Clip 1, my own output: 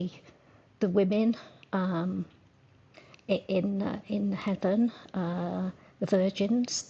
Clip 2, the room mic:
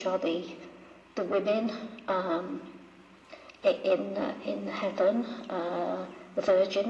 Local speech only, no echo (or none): none